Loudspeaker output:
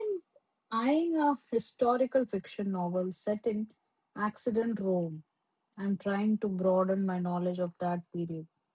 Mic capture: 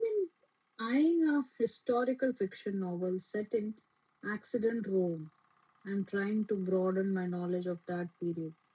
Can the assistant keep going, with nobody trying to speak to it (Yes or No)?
Yes